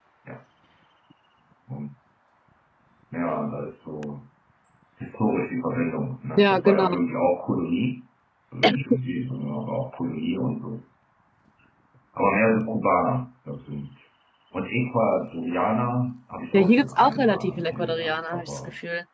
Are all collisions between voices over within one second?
No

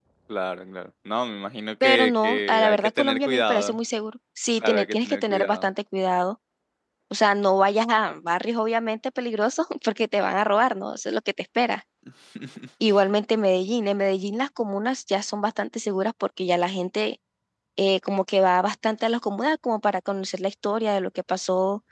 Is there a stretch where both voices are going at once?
Yes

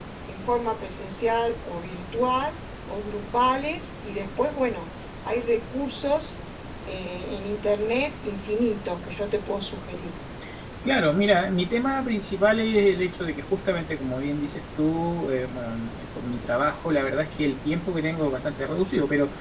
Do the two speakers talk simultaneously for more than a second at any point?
No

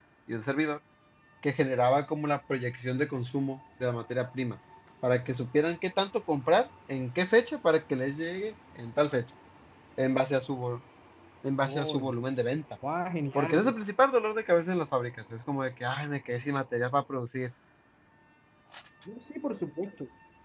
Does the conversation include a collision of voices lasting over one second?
No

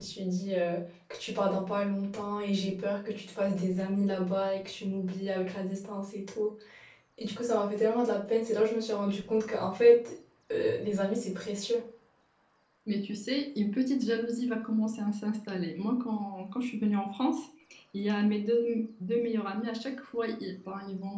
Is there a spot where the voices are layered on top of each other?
No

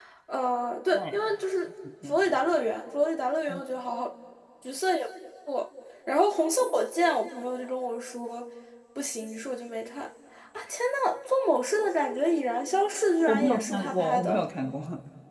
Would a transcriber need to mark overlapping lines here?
Yes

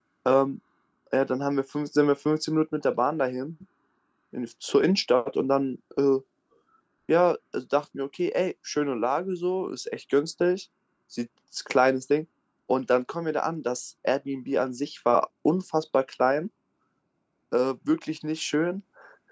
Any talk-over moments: No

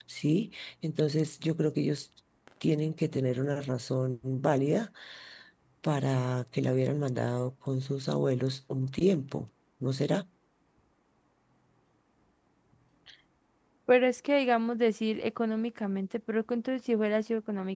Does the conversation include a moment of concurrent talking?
No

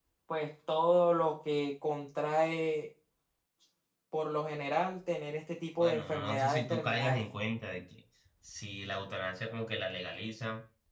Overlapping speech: Yes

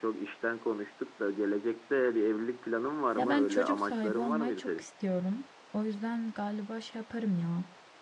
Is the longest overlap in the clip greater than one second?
Yes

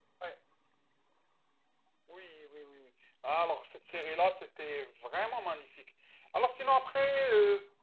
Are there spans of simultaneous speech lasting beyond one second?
No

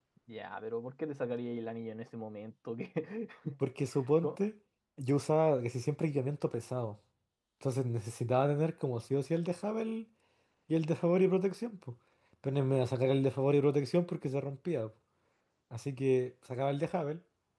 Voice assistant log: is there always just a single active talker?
Yes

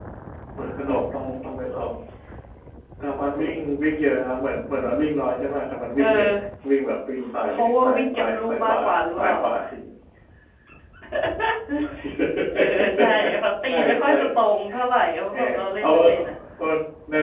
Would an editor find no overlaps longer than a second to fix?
No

